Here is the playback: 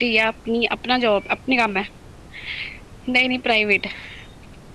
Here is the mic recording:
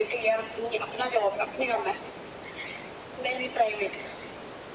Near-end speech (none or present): none